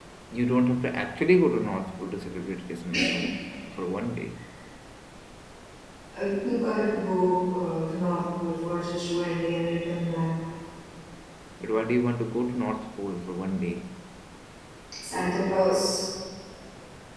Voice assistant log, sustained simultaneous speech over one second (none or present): none